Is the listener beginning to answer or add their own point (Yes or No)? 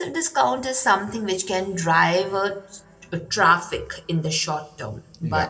No